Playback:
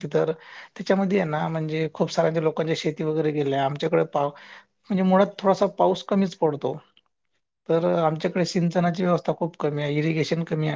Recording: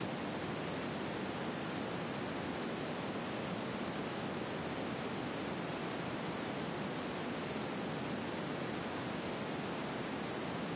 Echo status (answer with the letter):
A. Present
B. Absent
B